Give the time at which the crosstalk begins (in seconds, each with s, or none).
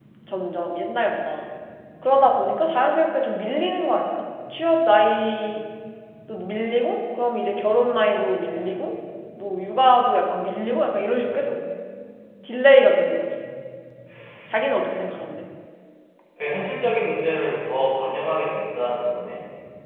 none